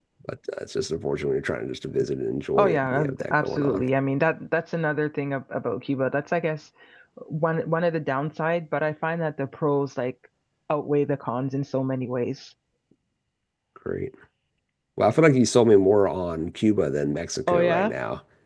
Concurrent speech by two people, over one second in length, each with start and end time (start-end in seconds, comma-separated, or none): 2.6-3.9